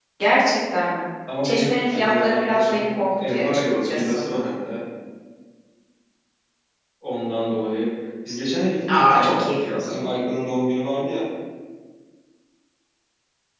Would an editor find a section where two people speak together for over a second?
Yes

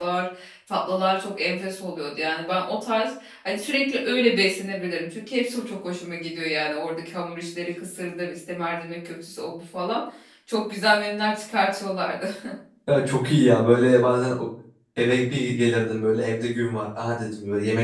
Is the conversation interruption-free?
Yes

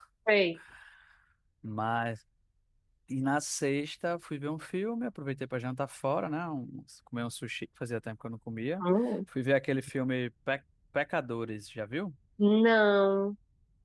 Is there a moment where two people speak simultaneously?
No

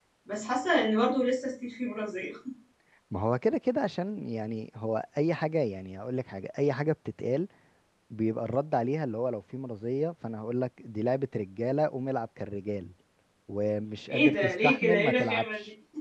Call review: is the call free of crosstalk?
No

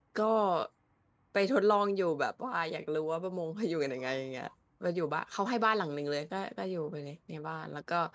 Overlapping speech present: No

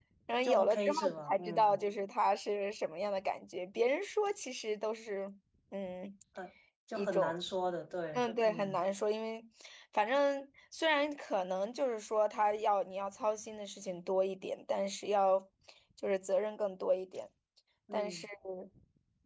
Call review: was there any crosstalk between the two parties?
Yes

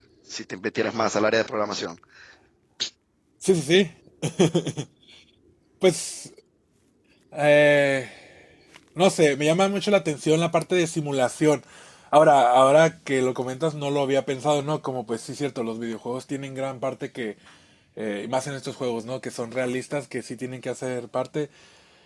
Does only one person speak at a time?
Yes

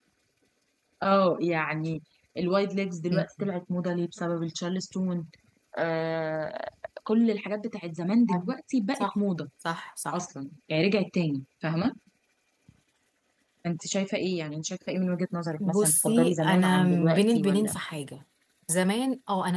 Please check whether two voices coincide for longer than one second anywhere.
Yes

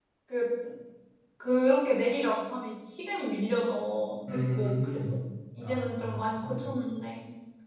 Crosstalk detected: Yes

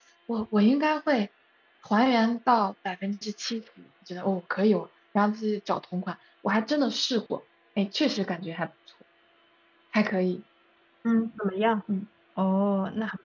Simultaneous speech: No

